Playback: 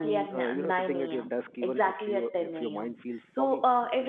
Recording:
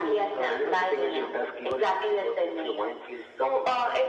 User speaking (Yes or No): No